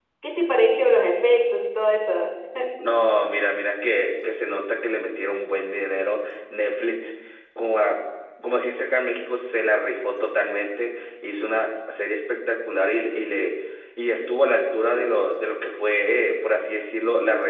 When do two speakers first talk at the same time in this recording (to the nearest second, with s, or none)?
none